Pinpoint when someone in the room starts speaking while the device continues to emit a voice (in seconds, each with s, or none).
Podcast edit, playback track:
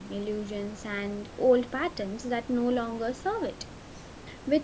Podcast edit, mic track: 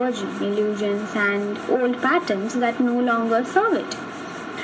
none